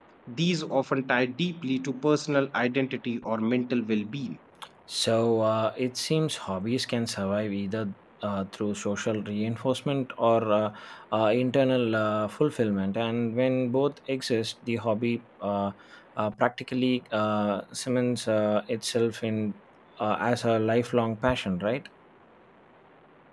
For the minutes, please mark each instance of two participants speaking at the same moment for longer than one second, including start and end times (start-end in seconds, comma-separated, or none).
none